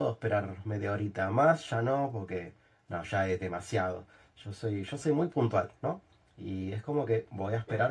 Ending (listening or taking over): listening